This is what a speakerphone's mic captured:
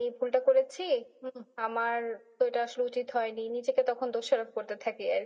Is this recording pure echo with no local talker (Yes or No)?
Yes